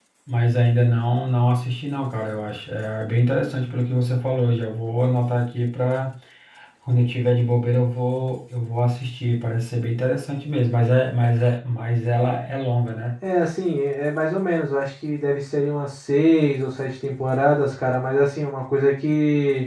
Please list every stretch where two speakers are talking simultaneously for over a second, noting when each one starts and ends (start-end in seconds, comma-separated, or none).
none